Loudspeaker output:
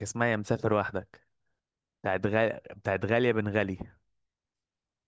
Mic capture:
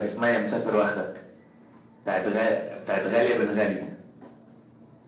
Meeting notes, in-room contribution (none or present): none